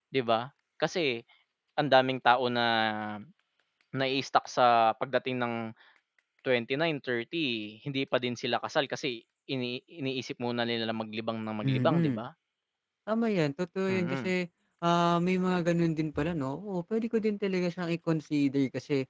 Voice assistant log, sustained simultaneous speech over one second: none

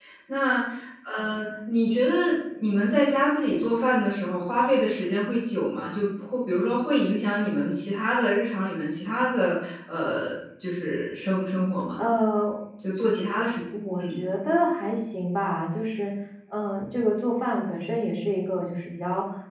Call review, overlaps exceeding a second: none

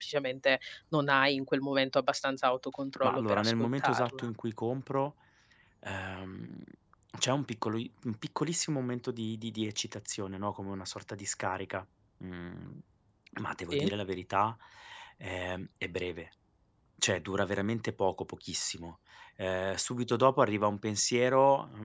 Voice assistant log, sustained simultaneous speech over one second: present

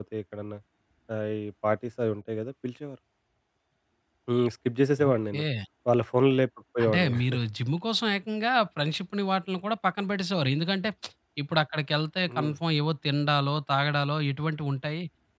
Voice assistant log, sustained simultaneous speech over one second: none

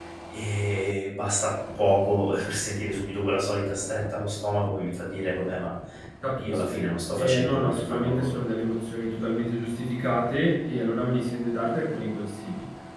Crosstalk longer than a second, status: present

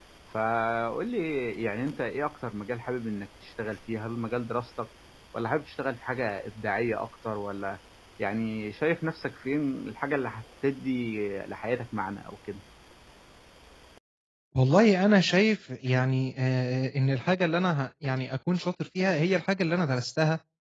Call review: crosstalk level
none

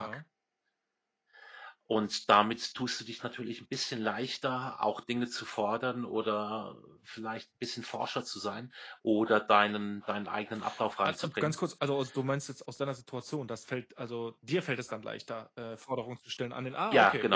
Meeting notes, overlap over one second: none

